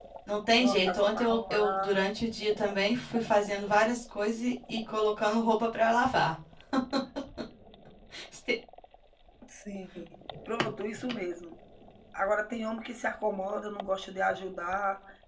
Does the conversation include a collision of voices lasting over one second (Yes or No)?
Yes